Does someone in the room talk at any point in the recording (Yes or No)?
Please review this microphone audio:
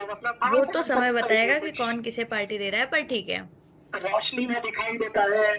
Yes